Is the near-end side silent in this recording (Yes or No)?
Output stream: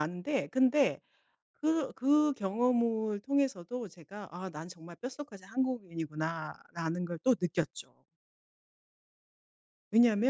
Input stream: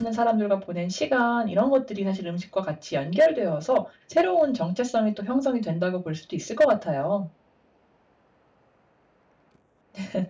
No